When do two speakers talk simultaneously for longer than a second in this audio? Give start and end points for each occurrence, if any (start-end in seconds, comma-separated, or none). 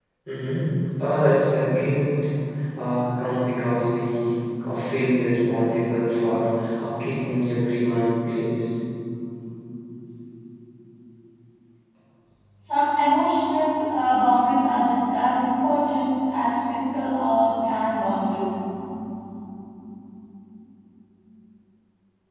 none